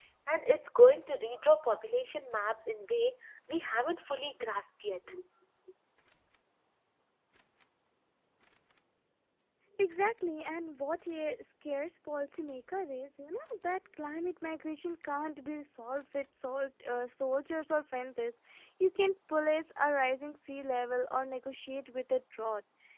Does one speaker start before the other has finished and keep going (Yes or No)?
No